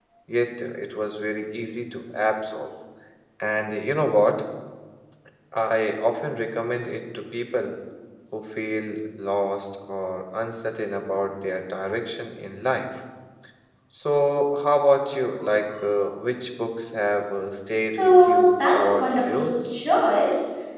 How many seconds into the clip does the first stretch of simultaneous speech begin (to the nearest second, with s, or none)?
18 s